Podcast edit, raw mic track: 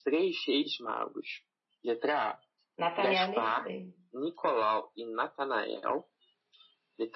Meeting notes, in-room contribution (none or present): present